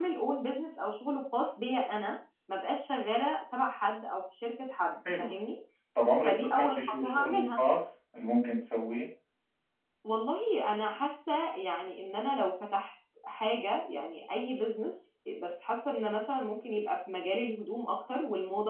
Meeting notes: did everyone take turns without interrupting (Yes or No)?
No